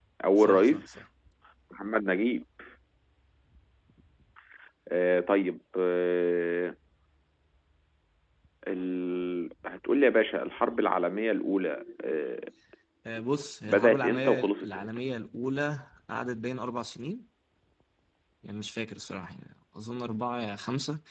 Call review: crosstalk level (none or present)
present